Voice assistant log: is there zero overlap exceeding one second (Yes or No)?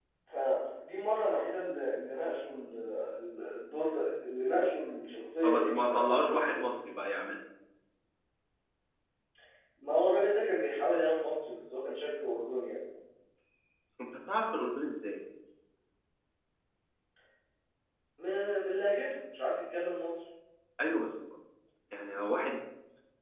No